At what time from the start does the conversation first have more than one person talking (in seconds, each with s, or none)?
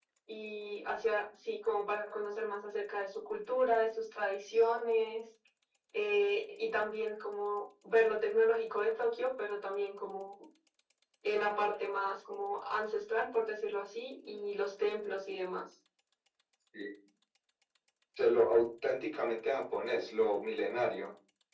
none